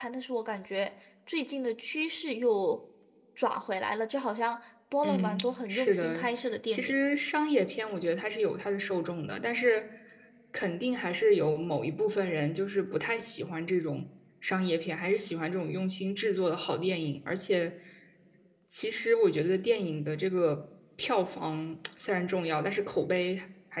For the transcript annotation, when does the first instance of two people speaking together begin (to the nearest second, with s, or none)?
5 s